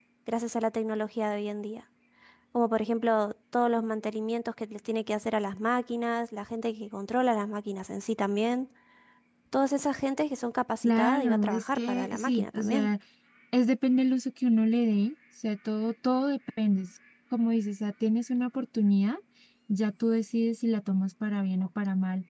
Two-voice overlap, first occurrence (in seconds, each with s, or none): 10.8 s